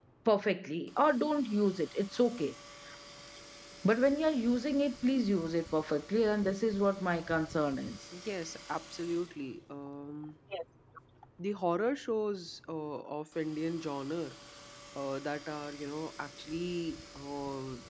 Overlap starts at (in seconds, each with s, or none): none